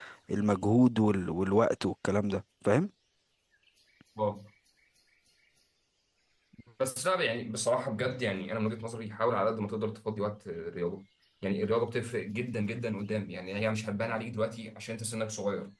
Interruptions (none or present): none